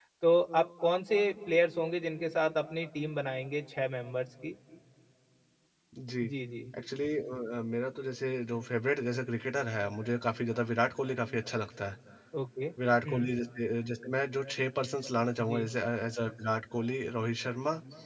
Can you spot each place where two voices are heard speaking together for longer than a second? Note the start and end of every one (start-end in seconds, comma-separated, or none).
none